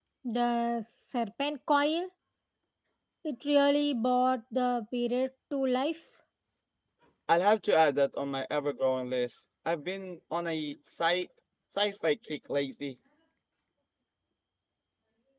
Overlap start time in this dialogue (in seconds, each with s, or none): none